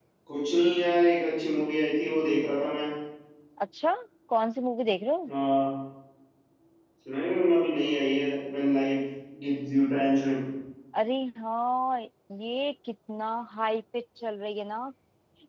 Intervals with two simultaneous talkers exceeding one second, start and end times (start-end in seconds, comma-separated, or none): none